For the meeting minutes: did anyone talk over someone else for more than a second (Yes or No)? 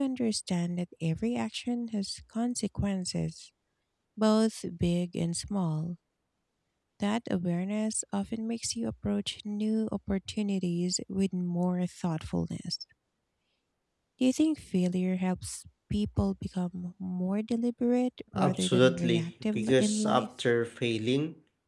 Yes